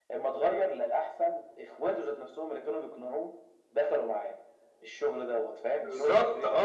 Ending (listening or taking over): taking over